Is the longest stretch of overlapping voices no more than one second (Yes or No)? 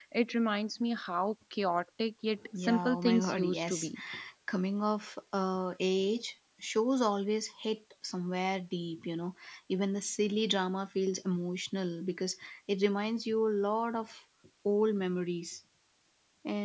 No